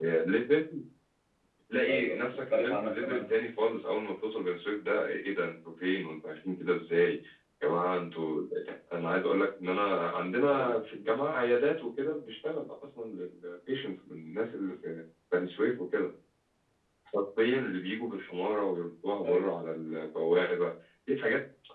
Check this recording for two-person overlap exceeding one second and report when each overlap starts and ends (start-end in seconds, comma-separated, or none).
1.9-3.4